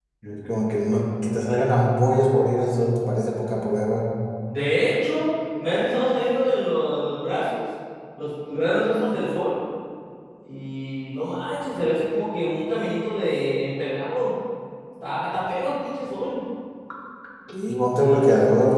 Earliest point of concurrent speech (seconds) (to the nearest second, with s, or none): none